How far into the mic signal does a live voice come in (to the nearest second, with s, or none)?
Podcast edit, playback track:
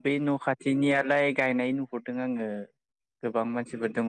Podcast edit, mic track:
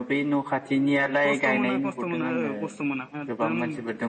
1 s